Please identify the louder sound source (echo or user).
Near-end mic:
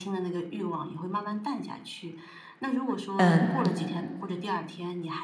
user